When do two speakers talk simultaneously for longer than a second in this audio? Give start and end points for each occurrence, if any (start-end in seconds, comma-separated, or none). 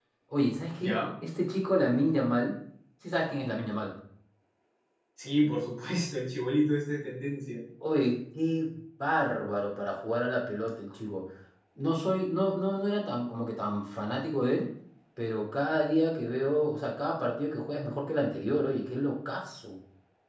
none